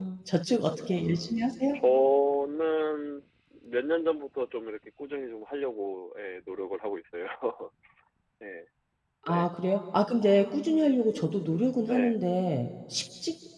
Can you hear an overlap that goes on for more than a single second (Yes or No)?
No